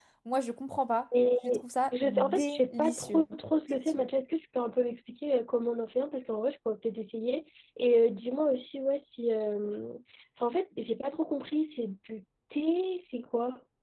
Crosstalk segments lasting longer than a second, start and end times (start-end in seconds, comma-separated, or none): 2.0-3.2